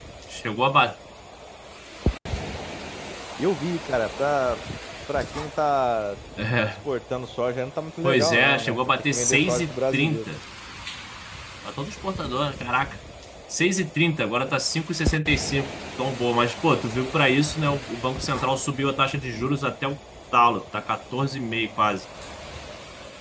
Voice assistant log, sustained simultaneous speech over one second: present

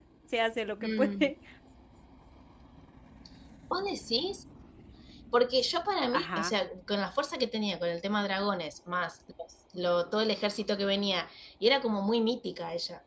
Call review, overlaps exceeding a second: none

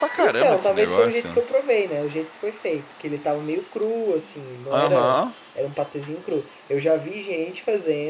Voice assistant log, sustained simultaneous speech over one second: present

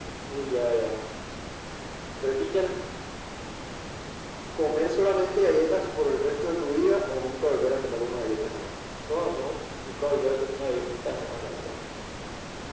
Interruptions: none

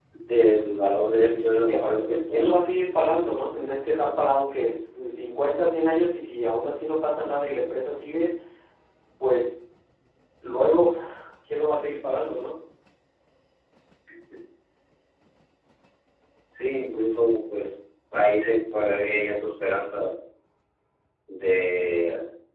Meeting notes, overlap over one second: present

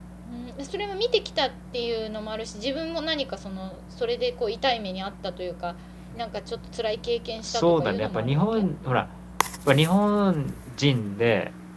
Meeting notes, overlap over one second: present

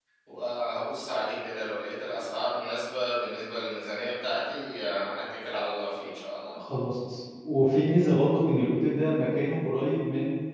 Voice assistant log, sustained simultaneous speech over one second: none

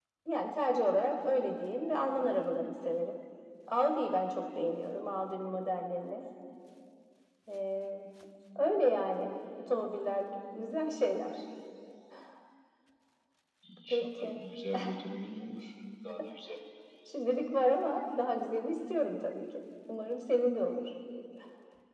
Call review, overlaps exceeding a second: none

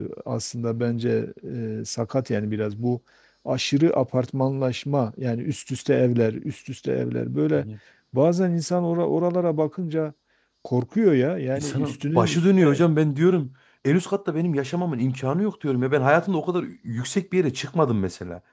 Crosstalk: present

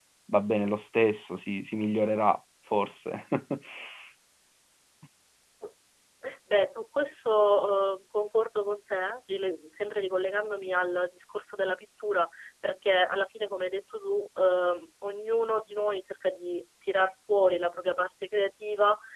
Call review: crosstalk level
none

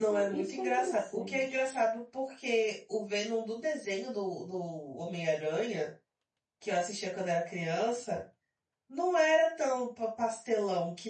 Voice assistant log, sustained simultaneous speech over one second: present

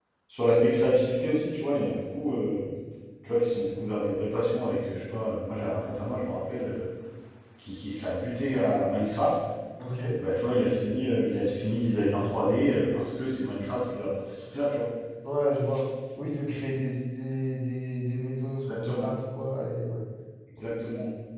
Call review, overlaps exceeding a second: none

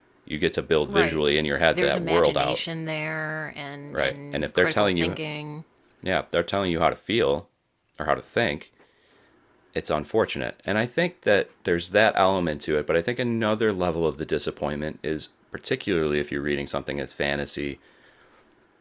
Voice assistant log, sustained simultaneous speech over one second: present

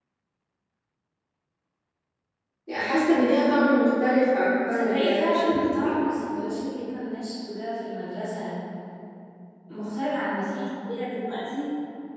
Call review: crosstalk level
present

